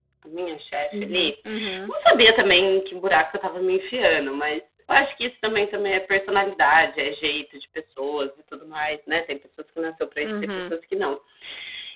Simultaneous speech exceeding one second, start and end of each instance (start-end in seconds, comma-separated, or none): none